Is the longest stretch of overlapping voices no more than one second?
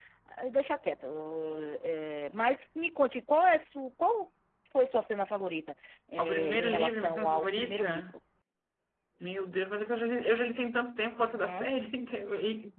No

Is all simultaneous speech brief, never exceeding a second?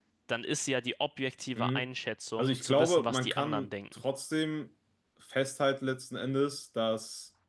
No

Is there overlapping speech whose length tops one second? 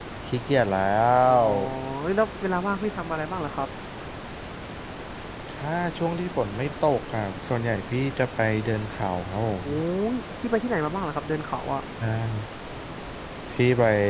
No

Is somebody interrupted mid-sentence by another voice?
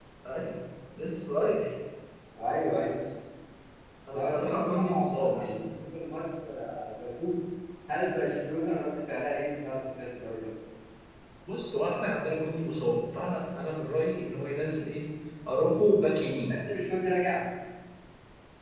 Yes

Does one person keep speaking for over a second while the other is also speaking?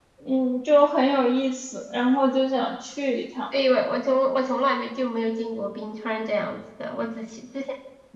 No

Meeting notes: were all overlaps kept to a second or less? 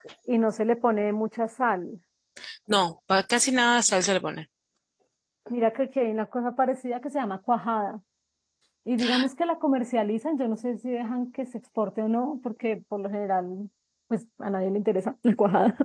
Yes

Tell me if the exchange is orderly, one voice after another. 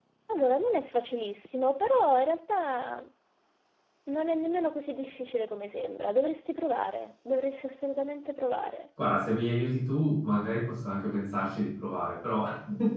Yes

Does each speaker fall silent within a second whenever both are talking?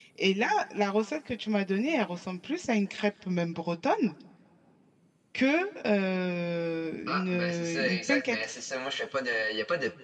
No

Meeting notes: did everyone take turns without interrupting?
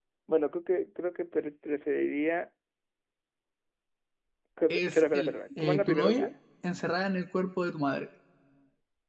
No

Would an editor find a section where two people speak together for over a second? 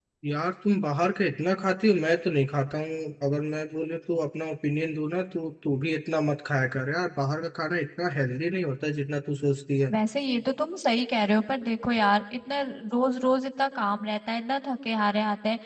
No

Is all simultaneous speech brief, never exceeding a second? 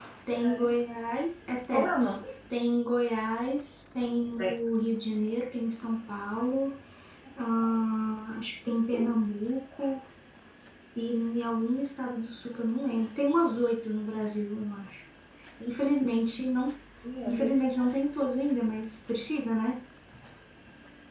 Yes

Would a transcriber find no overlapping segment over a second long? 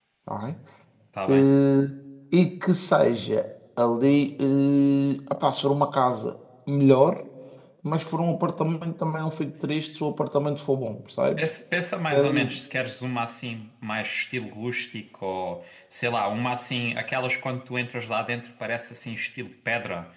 Yes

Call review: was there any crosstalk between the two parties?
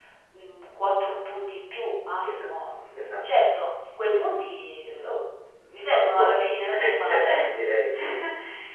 Yes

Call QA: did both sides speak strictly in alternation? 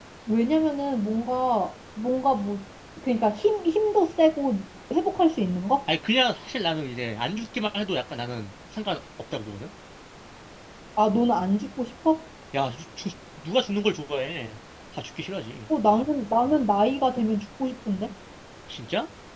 Yes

